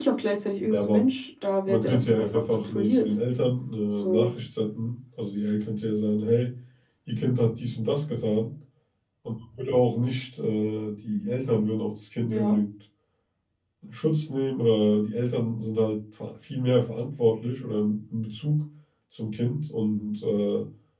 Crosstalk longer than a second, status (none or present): present